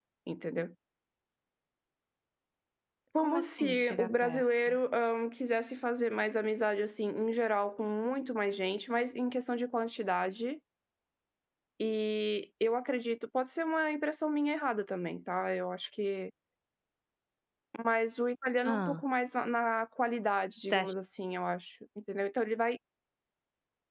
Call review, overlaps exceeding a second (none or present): present